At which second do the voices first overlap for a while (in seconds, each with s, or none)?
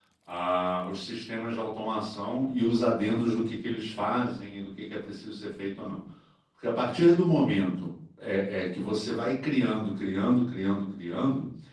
none